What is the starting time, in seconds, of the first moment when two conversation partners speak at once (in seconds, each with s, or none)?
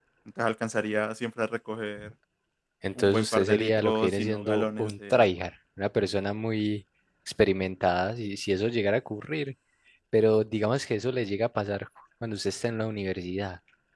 3.0 s